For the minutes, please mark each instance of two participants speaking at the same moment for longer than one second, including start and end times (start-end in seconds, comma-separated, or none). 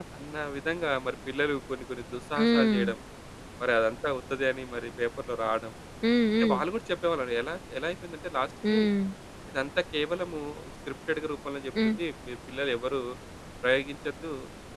none